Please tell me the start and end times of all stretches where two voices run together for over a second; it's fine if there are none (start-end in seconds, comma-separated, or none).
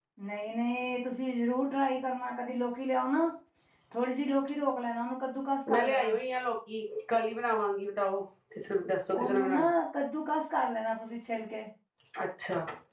none